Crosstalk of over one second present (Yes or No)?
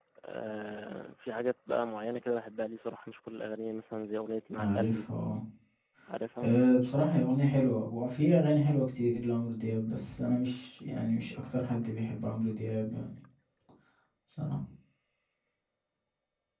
No